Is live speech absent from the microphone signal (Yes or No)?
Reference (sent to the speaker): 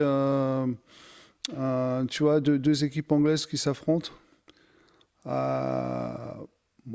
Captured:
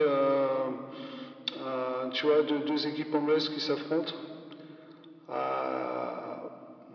Yes